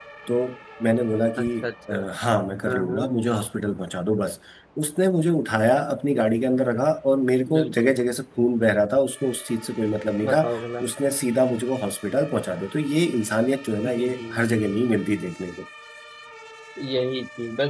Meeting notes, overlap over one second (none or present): none